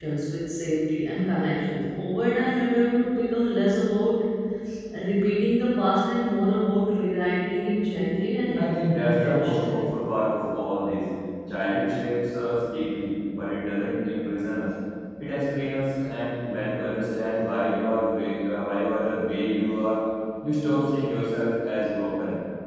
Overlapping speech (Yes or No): Yes